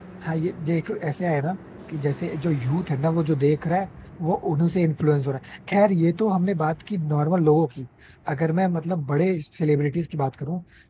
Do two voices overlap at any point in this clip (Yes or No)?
No